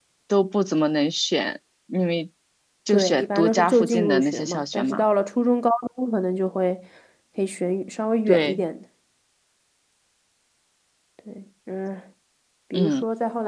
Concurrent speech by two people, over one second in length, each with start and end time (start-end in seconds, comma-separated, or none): 2.9-5.0